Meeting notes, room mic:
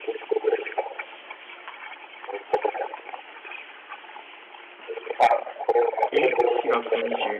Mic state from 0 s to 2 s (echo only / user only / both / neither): echo only